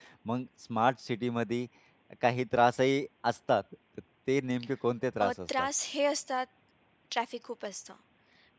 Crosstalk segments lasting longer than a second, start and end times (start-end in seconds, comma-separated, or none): none